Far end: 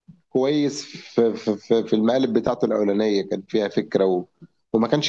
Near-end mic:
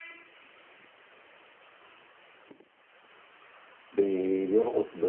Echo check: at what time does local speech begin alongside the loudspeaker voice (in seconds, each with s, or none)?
3.9 s